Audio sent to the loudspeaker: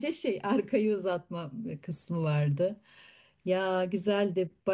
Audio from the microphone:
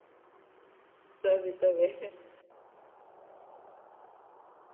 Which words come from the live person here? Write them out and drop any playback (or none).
Tabii tabii.